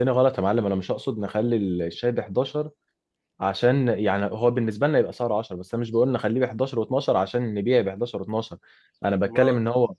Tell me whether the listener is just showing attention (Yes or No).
Yes